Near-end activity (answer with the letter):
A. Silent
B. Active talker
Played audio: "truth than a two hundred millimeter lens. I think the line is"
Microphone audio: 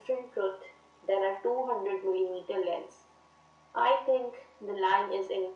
A